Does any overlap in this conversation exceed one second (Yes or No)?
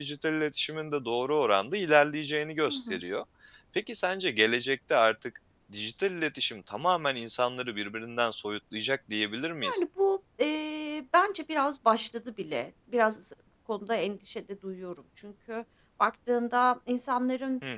No